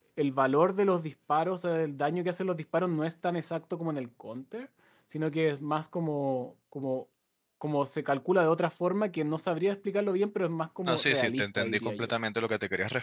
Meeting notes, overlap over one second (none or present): present